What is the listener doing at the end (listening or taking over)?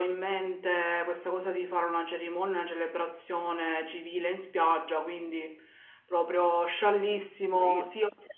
taking over